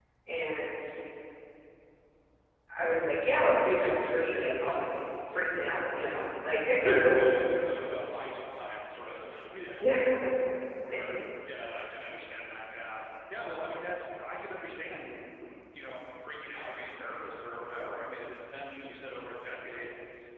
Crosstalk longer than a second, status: none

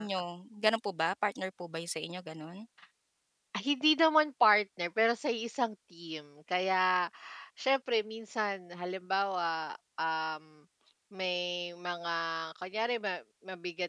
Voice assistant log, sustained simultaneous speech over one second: none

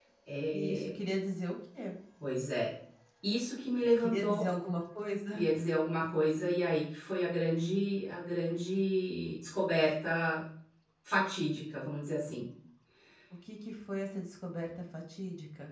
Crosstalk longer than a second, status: none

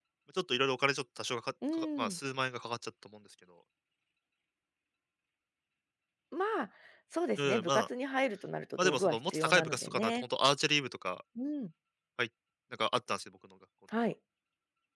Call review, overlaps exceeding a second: present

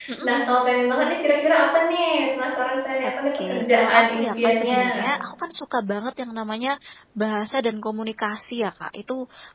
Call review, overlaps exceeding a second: present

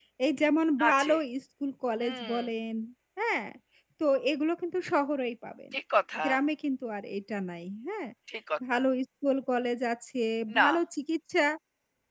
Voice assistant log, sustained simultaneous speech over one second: none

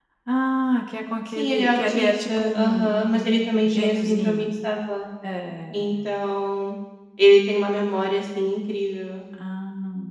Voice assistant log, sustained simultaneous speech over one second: present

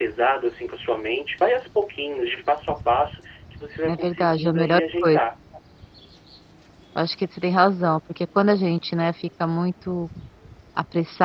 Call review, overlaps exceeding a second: present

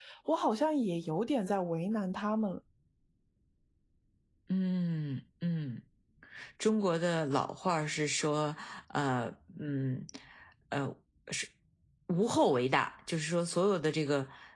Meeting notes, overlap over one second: none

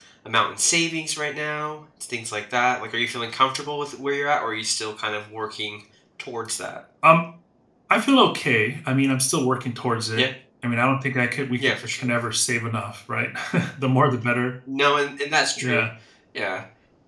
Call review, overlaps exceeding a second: none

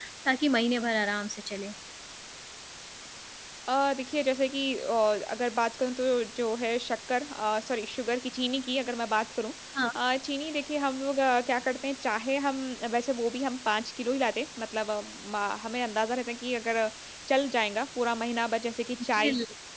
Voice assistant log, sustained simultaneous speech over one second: none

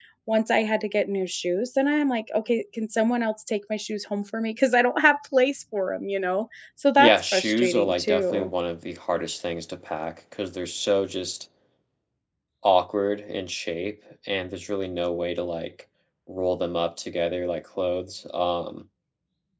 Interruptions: present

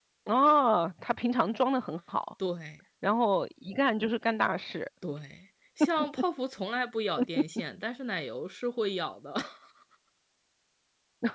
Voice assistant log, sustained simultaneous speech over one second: none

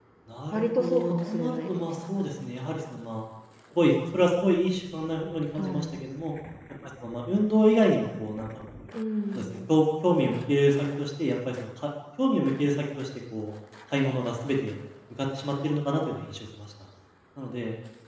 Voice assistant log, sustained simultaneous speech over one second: present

